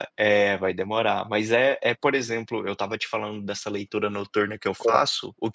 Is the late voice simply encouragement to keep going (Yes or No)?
Yes